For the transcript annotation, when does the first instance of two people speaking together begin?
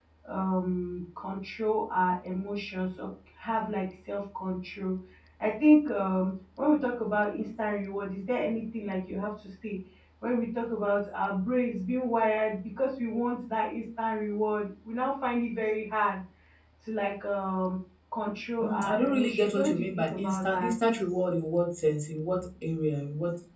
18.6 s

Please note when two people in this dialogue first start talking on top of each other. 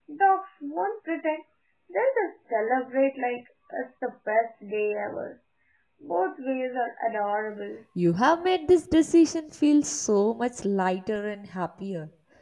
none

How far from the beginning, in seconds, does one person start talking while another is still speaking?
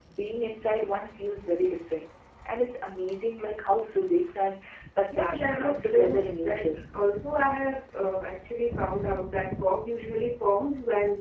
5.1 s

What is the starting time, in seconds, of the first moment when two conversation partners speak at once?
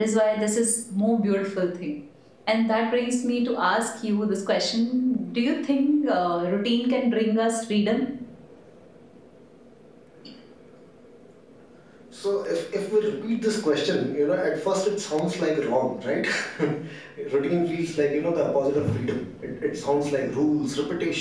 none

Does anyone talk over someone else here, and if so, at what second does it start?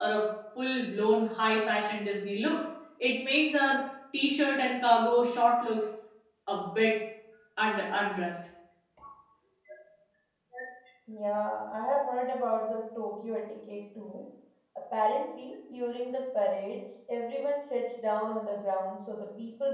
none

